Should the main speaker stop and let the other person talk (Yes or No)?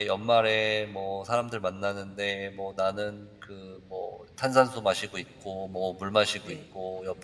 No